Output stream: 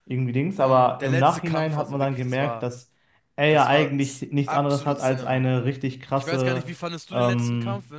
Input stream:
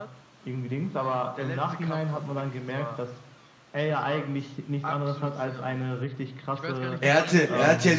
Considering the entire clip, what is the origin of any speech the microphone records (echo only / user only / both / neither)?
both